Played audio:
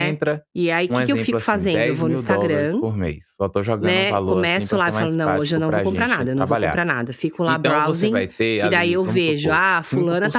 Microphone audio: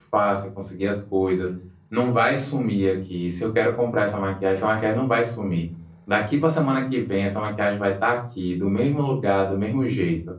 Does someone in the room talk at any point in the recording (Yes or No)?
Yes